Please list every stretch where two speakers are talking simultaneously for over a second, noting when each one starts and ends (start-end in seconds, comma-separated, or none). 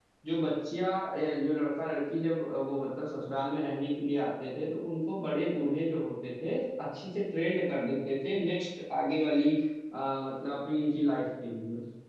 none